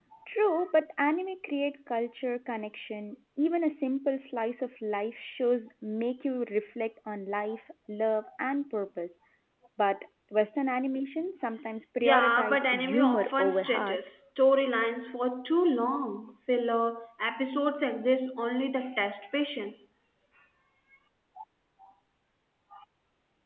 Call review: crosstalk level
present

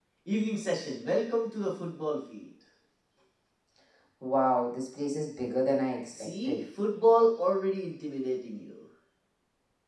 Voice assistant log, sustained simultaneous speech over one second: none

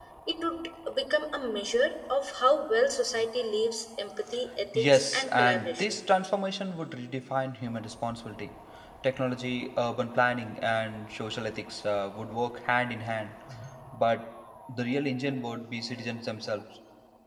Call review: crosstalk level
present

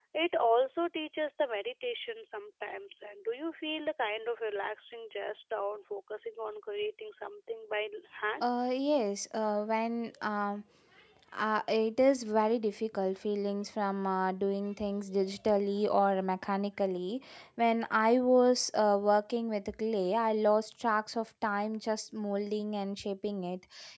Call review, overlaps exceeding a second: none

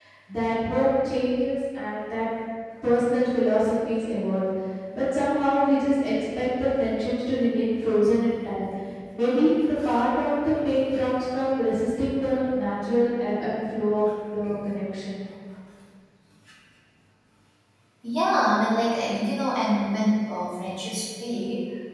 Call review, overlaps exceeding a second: none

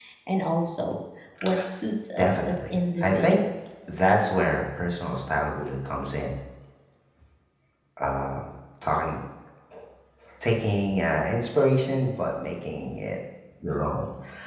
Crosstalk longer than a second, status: present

